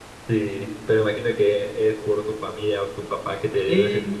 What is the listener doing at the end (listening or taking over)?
taking over